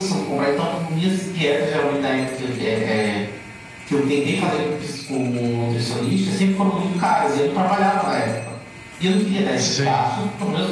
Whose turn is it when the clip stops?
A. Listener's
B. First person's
B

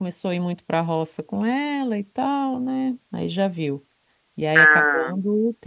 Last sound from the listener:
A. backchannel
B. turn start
A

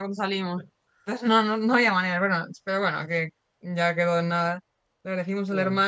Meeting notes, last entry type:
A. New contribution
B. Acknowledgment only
B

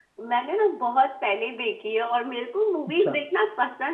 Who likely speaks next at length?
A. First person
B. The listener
A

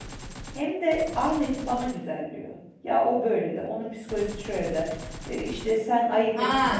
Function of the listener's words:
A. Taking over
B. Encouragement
A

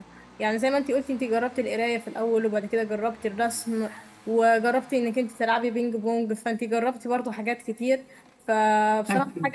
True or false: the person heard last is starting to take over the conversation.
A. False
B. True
A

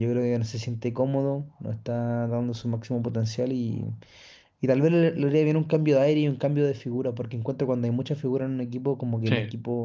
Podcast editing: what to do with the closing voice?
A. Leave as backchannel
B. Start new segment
A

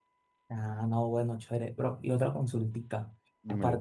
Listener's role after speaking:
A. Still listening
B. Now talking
A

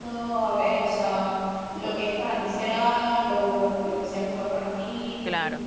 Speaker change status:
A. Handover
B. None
A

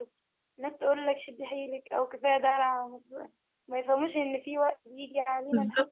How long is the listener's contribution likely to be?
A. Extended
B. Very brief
B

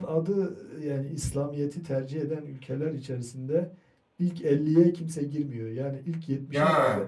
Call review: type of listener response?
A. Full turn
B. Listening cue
B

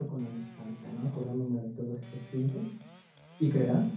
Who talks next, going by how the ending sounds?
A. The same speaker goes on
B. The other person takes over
A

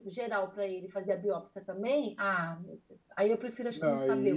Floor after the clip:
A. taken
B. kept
A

